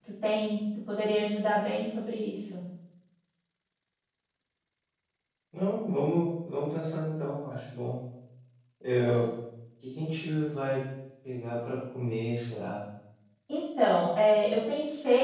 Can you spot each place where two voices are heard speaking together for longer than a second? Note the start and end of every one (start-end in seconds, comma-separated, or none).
none